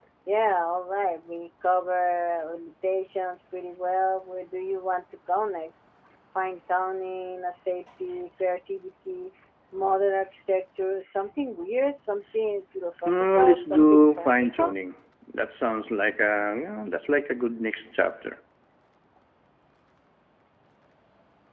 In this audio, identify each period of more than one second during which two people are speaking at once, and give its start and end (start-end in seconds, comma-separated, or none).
13.0-14.7